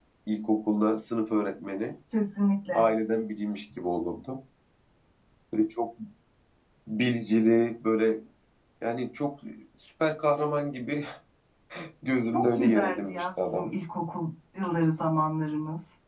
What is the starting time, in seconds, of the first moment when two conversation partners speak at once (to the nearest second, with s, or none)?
12 s